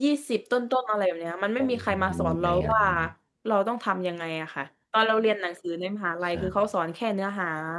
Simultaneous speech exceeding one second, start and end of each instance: 1.6-2.8

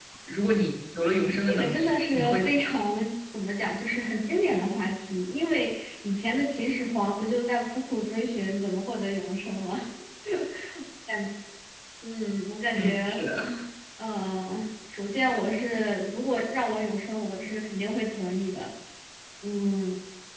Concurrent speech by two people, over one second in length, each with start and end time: 1.4-2.8

